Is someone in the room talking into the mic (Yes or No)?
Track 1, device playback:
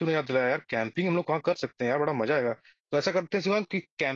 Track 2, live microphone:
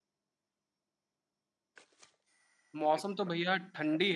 Yes